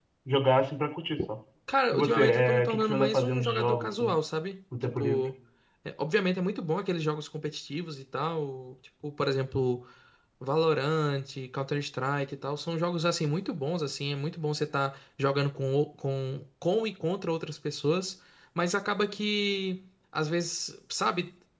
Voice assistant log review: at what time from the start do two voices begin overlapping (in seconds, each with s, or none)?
1.9 s